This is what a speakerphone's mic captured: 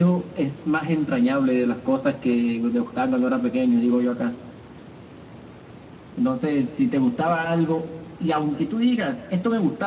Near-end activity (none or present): none